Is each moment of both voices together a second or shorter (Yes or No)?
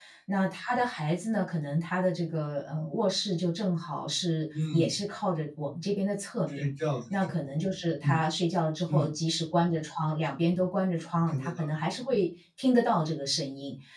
Yes